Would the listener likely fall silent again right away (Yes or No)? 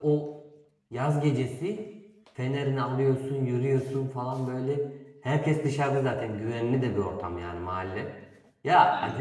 Yes